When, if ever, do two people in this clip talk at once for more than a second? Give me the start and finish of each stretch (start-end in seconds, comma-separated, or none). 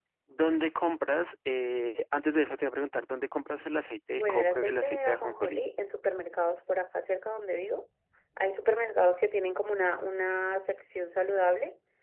4.1-5.6